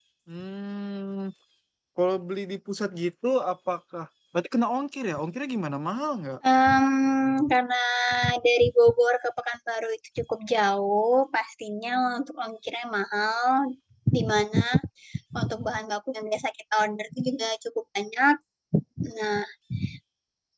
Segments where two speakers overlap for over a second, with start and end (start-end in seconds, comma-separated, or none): none